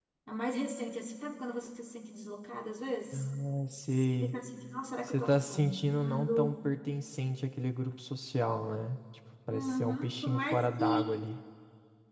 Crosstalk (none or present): present